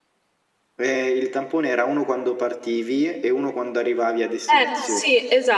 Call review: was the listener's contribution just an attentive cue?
No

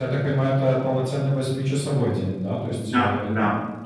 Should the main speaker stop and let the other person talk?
No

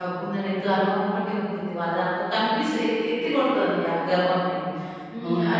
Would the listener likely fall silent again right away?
Yes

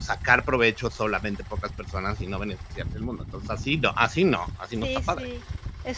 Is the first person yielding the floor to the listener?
Yes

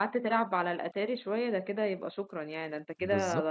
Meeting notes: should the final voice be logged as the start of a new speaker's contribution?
Yes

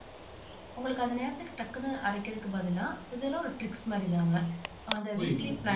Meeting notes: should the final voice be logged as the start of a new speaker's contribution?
Yes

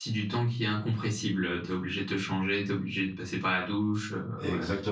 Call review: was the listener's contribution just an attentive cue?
No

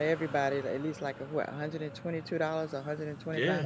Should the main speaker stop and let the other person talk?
Yes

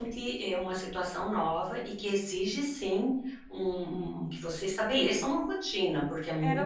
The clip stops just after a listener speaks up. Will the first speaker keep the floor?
No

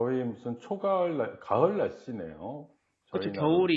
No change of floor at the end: No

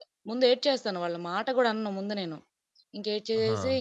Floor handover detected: No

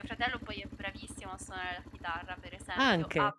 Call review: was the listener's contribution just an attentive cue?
Yes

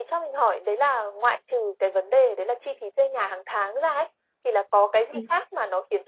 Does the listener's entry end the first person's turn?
No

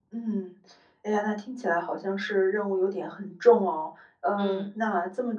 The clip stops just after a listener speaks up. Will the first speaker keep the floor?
Yes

